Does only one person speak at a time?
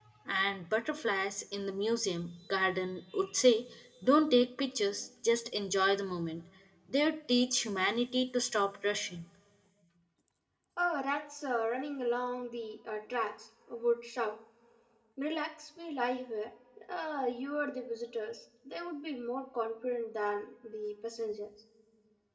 Yes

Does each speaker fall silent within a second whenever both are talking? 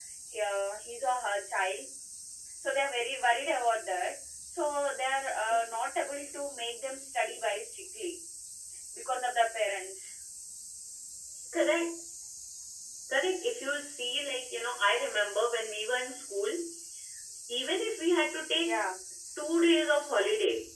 Yes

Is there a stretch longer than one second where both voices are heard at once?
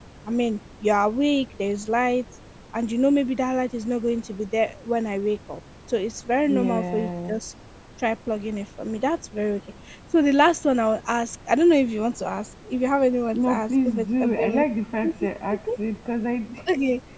Yes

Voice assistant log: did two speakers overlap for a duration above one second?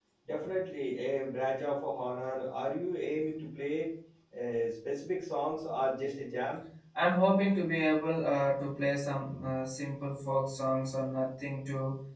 No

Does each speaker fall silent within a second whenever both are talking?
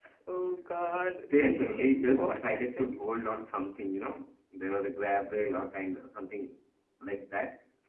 No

